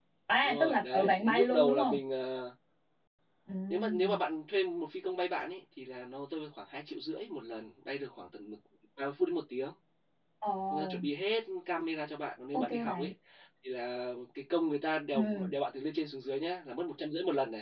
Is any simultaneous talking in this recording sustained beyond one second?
Yes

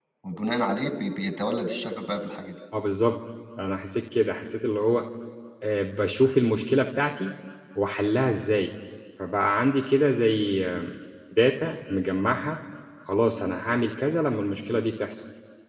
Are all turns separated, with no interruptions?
Yes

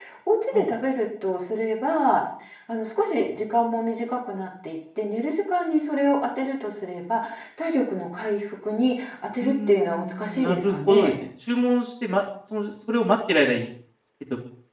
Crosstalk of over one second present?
Yes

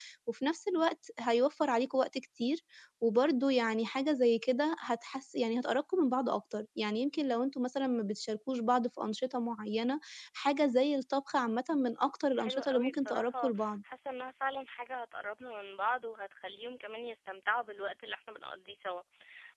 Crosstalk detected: Yes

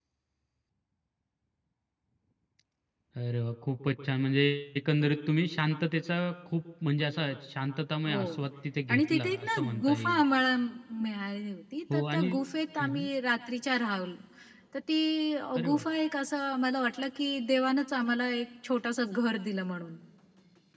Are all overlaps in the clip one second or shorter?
No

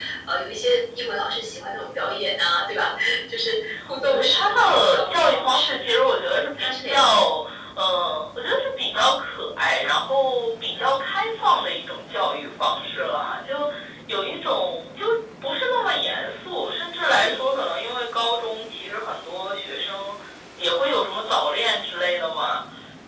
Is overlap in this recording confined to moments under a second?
No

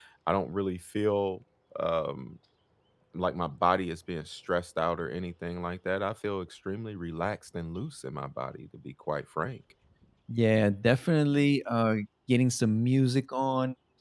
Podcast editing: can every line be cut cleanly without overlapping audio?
Yes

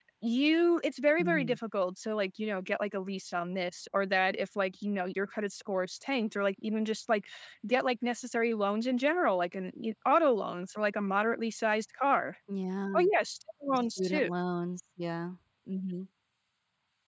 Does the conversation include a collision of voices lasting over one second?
No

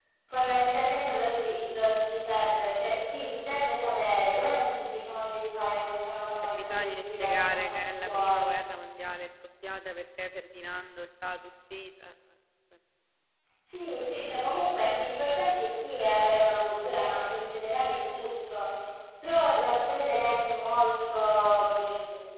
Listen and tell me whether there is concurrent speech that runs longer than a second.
Yes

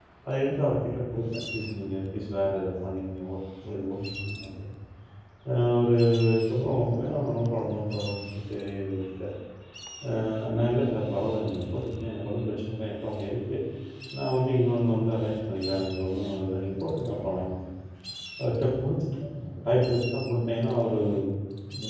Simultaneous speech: No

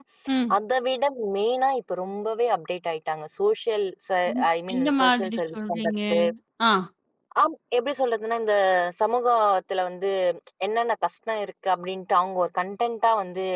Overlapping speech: Yes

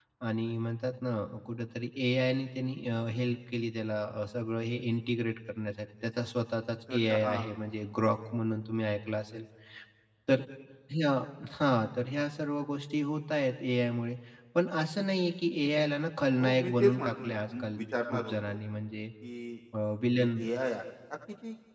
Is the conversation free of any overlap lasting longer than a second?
No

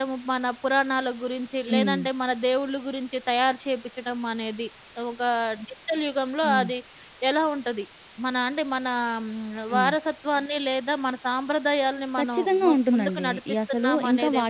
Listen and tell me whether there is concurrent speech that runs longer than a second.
Yes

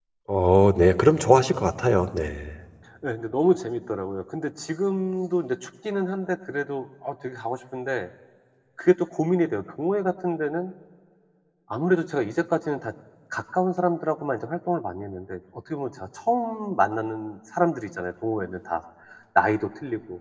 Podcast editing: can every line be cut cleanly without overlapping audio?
Yes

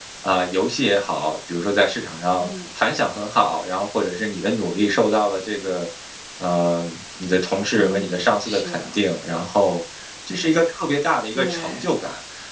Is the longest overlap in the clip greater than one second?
Yes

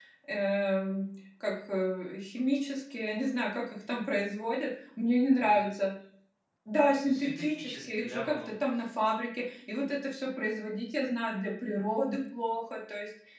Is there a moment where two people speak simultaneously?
Yes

